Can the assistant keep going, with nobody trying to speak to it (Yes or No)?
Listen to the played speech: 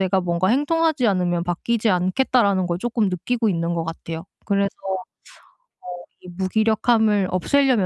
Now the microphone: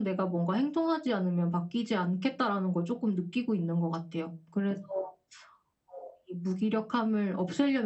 Yes